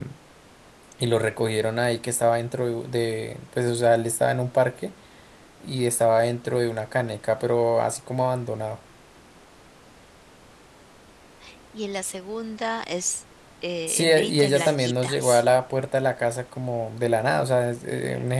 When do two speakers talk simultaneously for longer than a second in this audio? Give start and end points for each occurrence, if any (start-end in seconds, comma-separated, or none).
13.9-15.2